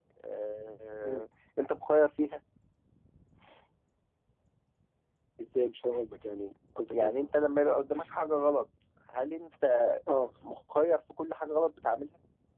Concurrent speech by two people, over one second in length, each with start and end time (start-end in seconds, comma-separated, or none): none